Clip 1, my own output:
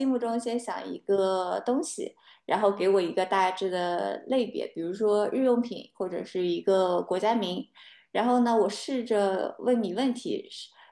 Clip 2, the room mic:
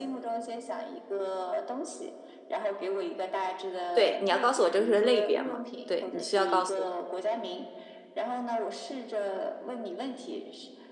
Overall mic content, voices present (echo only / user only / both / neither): both